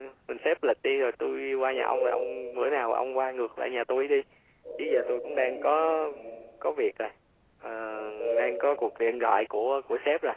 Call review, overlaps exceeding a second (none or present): present